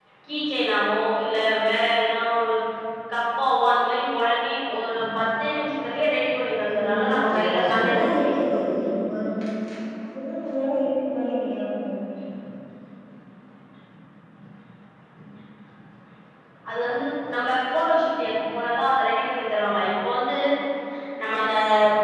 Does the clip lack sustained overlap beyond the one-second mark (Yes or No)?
No